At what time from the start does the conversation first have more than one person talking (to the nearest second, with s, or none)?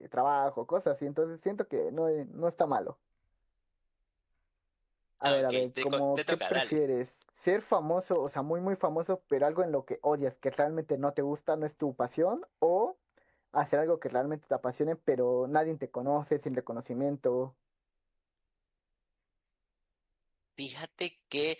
5 s